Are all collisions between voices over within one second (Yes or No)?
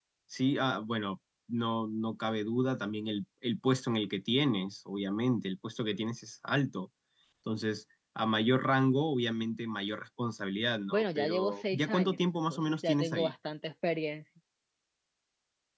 No